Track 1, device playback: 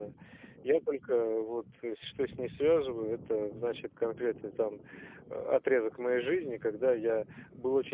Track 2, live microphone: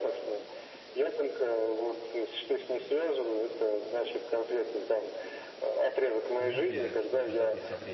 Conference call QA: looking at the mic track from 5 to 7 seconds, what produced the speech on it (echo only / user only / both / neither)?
both